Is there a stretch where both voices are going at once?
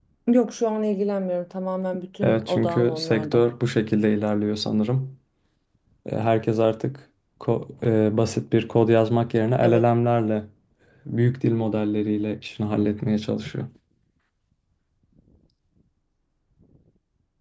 Yes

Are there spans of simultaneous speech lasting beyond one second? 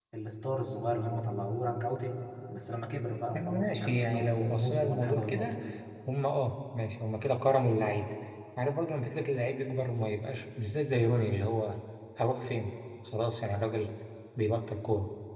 Yes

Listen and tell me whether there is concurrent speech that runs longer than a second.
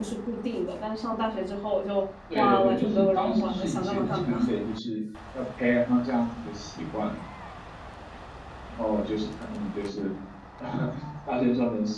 Yes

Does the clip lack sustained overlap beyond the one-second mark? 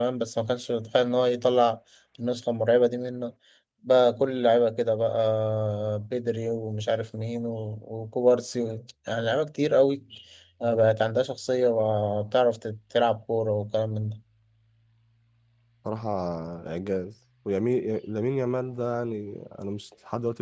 Yes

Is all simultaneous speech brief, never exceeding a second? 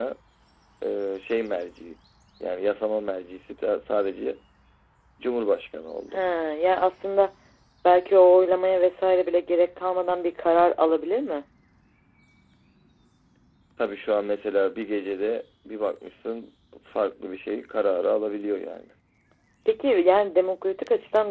Yes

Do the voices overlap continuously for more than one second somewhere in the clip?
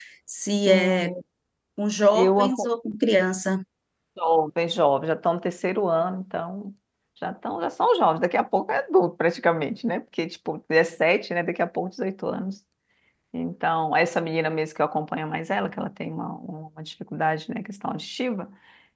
No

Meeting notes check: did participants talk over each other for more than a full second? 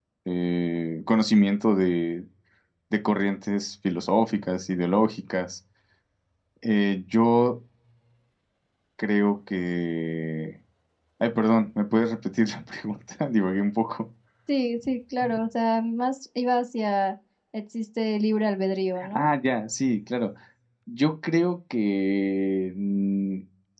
No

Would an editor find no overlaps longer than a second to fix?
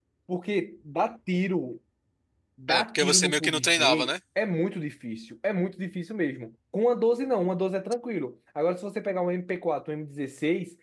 No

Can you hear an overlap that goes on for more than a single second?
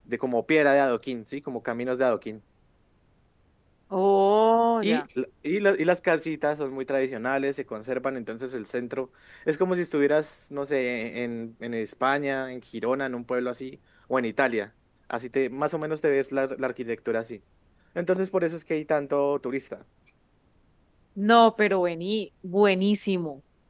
No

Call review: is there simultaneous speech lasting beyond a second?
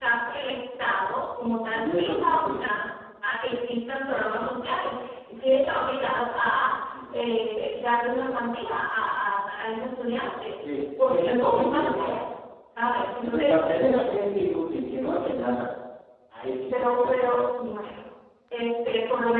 Yes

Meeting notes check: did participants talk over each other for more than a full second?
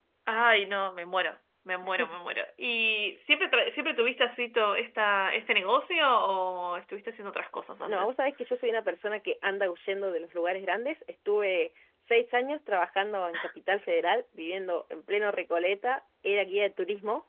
No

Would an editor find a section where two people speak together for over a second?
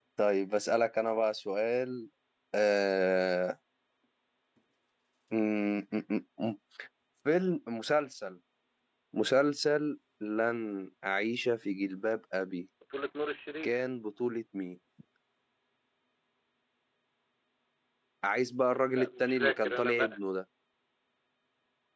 Yes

